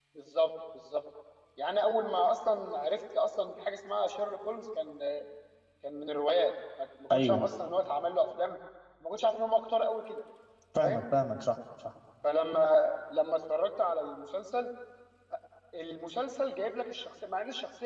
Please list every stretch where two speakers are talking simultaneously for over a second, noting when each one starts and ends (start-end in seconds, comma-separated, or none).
none